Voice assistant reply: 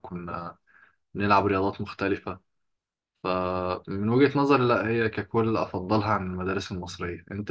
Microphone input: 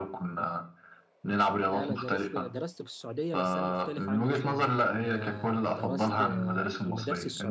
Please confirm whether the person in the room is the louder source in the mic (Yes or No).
No